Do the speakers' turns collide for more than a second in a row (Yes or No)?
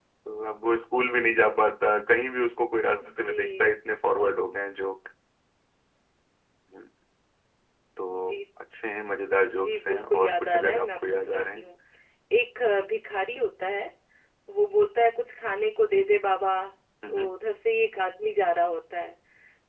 Yes